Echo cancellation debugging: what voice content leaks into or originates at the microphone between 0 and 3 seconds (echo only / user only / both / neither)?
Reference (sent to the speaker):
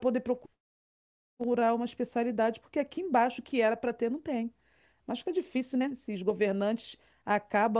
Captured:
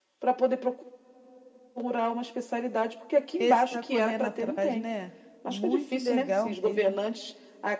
echo only